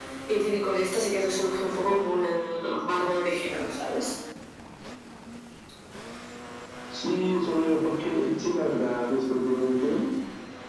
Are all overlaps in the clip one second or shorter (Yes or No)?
Yes